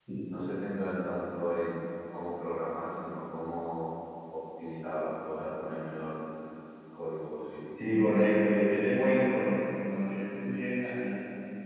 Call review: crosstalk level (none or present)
none